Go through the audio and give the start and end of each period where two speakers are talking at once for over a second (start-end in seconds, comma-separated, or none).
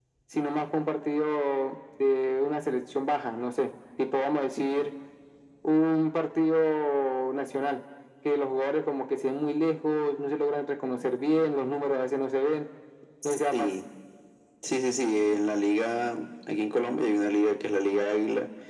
none